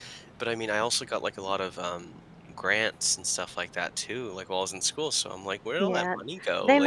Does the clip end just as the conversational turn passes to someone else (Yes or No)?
Yes